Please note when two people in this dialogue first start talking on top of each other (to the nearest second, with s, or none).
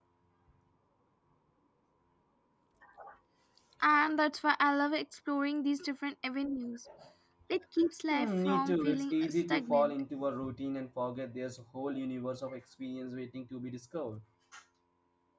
8 s